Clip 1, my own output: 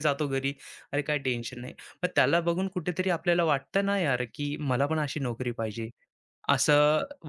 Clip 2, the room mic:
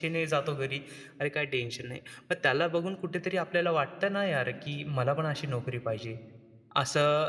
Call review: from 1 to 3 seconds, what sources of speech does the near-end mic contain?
echo only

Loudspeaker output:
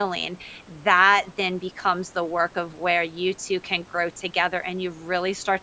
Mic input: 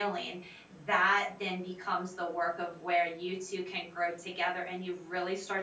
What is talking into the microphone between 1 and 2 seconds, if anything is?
echo only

